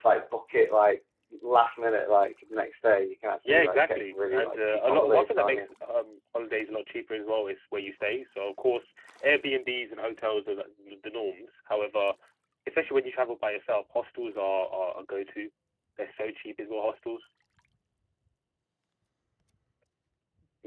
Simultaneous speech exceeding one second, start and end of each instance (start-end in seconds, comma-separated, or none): 3.4-5.7